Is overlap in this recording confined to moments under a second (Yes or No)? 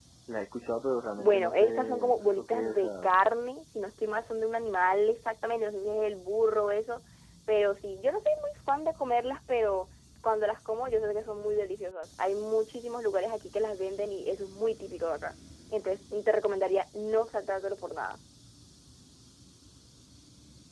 No